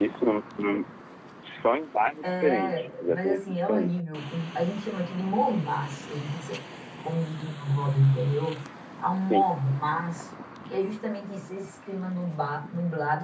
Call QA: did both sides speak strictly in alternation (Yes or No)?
No